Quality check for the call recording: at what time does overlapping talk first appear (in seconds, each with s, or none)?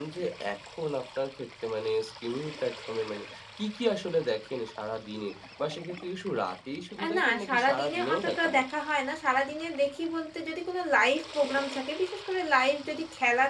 7.0 s